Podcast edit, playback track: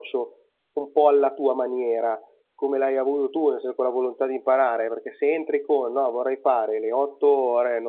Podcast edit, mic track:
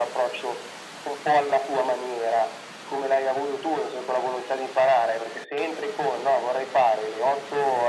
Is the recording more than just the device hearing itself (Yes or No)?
No